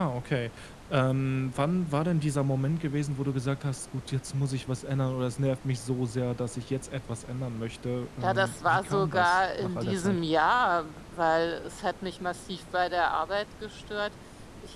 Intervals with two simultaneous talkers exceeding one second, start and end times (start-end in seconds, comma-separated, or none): 8.2-10.2